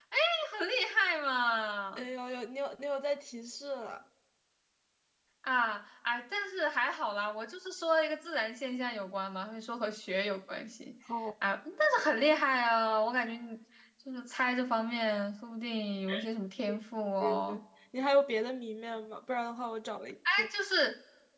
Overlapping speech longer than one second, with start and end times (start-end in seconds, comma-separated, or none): none